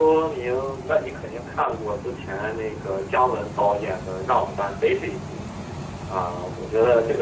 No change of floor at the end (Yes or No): No